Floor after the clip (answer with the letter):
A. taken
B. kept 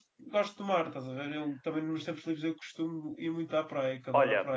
A